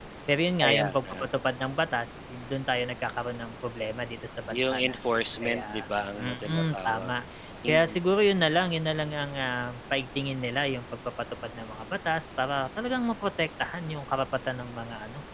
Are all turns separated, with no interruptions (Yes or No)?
No